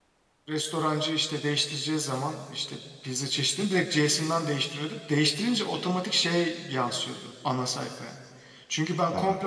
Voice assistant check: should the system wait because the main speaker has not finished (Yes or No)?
Yes